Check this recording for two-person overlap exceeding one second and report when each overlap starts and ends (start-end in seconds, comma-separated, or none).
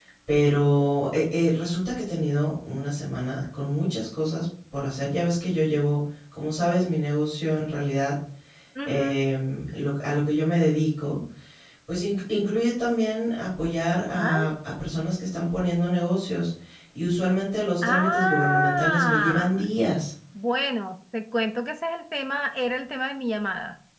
17.8-19.6